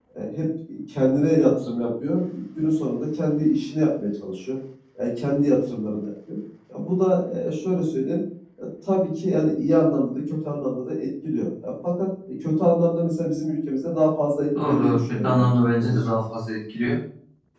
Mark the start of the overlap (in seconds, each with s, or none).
14.6 s